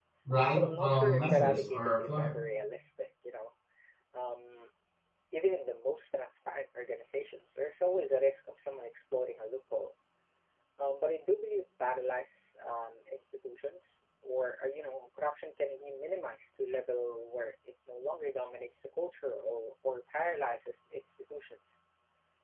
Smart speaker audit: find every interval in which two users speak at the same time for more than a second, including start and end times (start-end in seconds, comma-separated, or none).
0.6-2.3